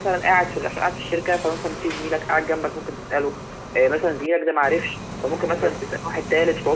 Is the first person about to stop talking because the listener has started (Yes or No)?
No